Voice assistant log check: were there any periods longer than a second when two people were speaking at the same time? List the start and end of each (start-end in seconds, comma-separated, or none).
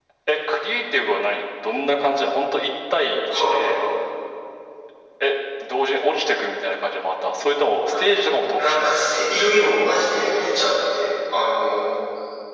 none